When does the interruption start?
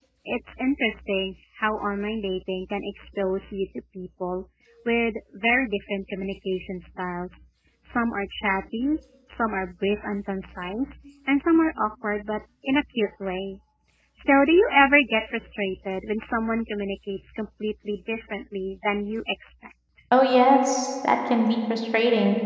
none

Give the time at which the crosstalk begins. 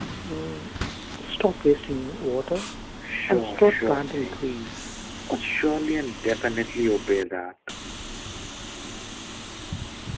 3.3 s

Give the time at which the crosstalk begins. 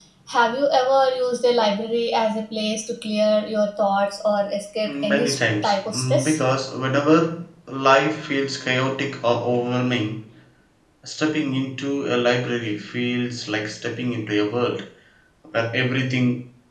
4.9 s

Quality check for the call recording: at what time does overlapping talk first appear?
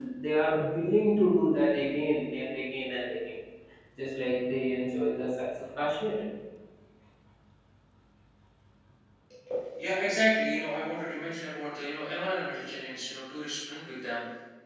none

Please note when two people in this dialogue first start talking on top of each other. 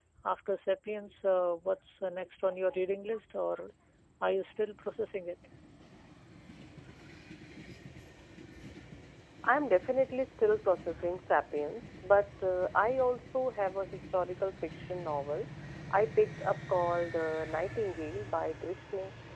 none

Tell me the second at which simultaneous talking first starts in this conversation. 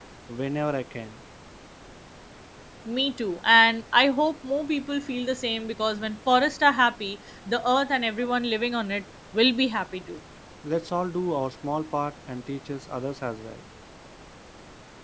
none

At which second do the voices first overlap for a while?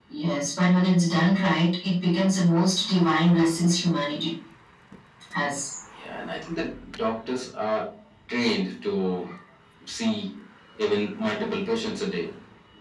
none

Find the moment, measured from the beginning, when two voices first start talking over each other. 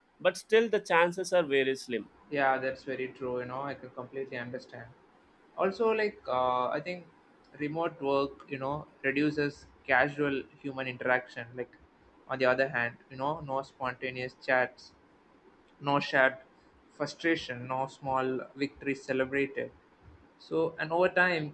none

